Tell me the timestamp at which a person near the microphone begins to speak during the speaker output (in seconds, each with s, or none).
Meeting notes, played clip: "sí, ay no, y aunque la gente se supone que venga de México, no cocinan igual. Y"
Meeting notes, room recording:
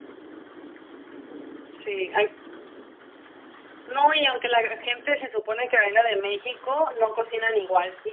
none